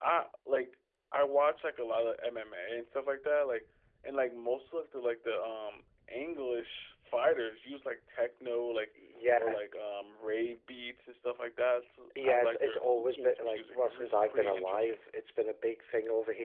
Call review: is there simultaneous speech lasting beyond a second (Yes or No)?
Yes